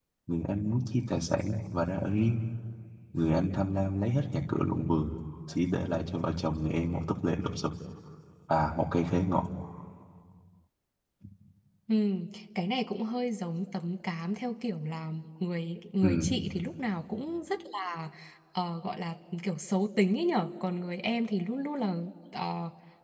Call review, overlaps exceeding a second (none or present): none